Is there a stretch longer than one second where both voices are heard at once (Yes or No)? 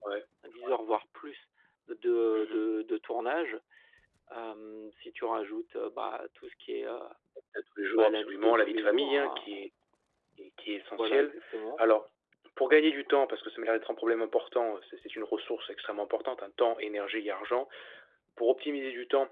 Yes